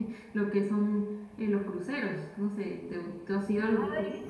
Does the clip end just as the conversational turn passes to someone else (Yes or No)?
Yes